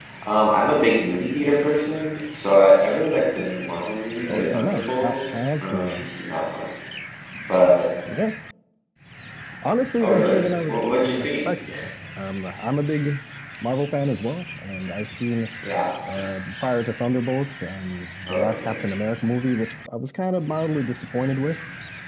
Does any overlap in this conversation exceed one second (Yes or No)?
Yes